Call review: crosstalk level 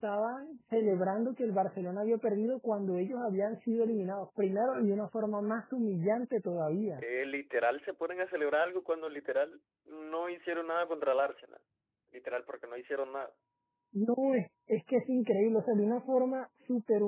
none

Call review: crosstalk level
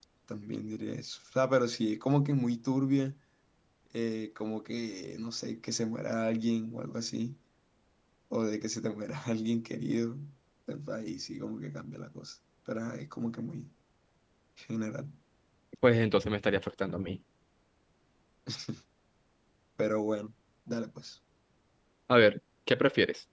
none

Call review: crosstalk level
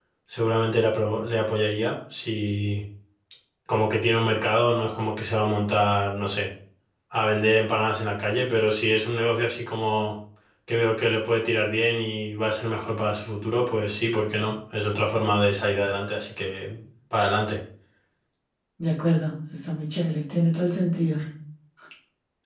none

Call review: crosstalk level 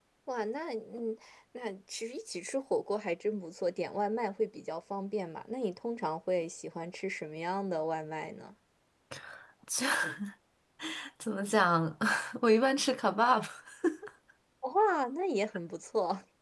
none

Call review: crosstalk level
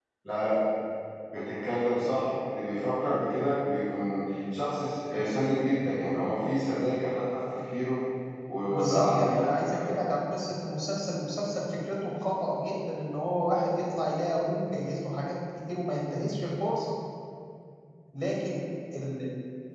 present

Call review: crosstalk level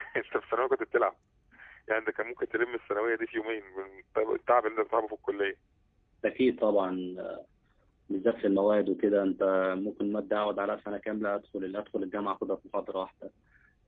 none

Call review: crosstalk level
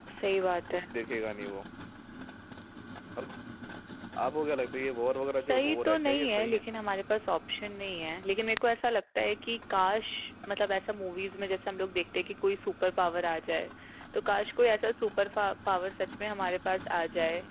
present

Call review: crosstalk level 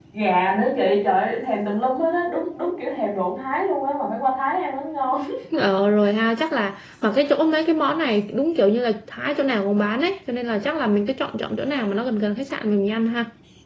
none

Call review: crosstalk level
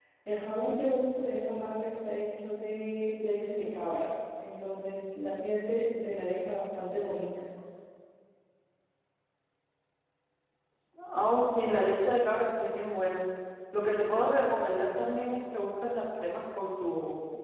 none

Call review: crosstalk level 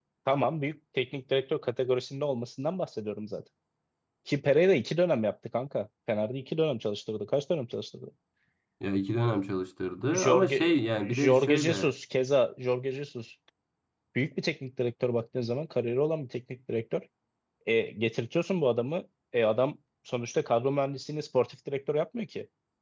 present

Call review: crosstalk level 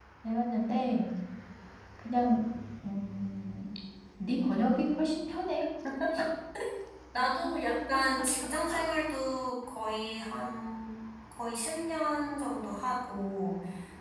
none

